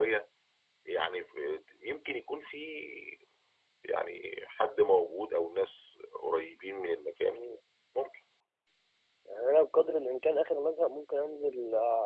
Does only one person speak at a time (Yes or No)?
Yes